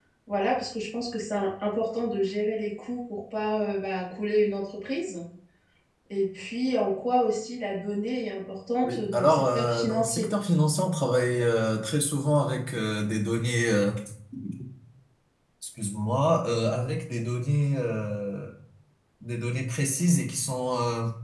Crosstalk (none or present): present